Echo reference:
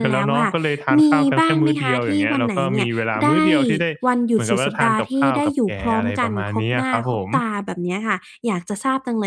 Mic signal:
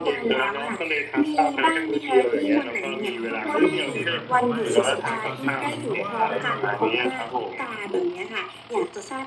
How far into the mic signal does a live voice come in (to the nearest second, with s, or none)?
3 s